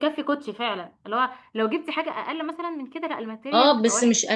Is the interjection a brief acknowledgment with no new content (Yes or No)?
No